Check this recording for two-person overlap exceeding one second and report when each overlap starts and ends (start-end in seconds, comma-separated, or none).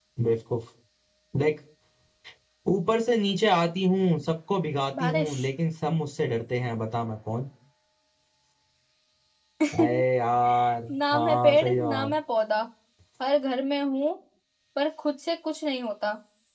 10.9-12.2